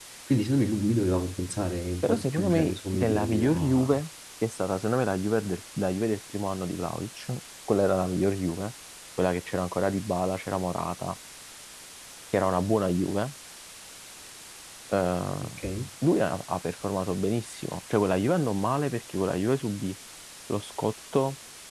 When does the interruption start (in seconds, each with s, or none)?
2.0 s